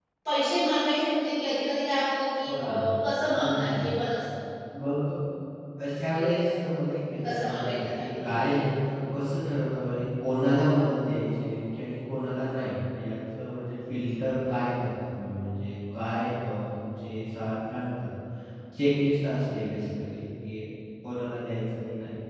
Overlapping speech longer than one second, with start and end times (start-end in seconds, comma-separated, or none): 7.3-8.6